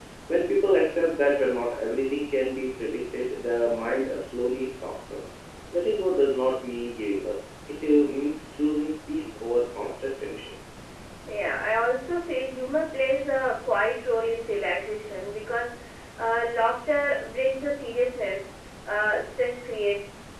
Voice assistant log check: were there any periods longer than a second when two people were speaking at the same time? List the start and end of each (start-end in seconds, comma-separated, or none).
none